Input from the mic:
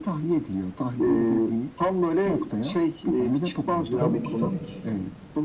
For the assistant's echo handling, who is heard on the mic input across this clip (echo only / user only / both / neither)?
both